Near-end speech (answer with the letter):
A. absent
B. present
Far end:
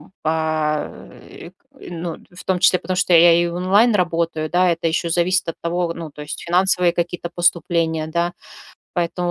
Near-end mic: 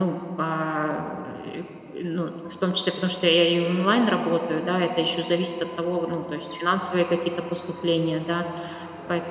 A